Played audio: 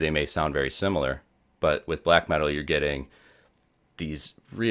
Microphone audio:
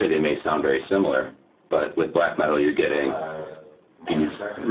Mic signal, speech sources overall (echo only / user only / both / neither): both